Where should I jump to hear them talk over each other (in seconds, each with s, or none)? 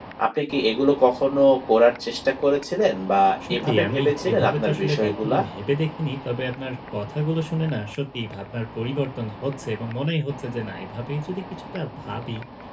3.4 s